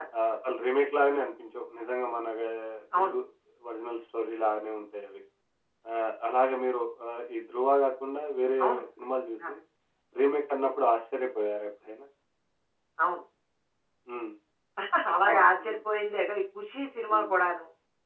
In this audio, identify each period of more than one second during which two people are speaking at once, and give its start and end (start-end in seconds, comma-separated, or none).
none